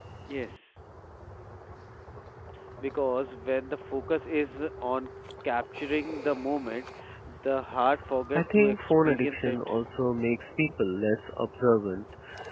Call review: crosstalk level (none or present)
present